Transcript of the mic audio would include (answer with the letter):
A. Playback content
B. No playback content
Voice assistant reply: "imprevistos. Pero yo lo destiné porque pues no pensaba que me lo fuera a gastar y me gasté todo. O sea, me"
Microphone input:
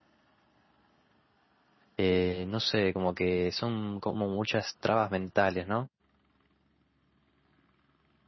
B